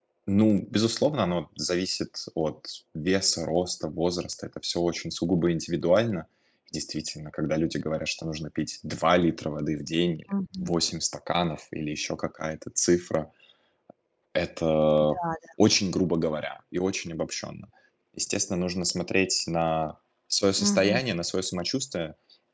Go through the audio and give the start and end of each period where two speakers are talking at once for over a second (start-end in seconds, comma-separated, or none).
none